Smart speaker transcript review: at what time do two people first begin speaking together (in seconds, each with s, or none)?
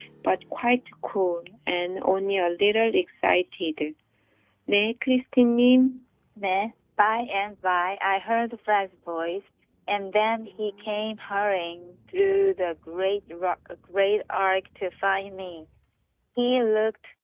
none